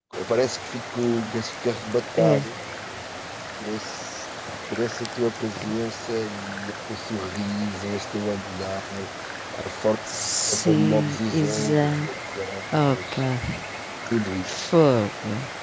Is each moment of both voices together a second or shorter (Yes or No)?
No